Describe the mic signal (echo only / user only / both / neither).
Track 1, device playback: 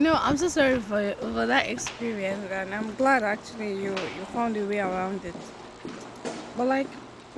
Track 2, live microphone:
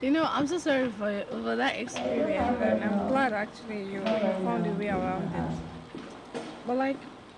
both